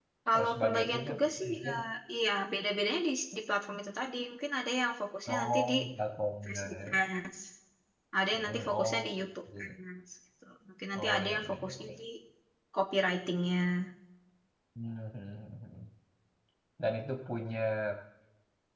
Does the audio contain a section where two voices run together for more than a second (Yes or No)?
Yes